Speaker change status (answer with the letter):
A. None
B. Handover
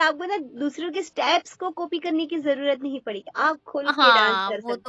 B